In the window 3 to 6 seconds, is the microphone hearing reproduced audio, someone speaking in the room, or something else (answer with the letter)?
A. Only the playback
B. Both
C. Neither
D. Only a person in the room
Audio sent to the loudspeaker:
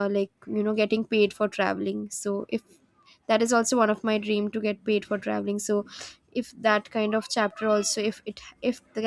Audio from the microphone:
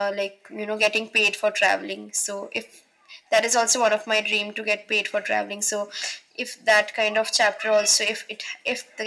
A